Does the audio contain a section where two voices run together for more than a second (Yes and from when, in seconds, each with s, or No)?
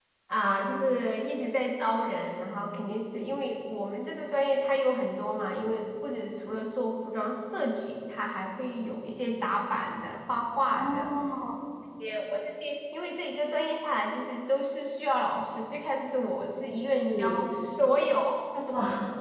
No